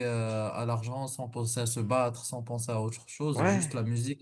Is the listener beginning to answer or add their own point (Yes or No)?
No